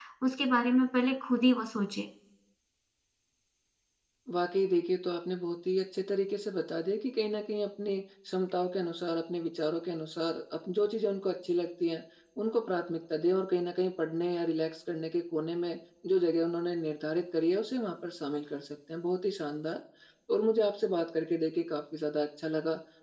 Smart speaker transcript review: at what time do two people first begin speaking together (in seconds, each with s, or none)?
none